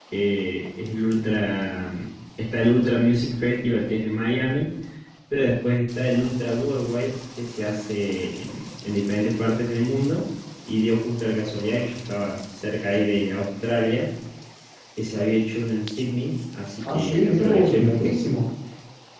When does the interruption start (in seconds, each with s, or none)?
16.8 s